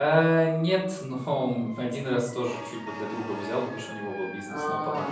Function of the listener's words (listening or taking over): listening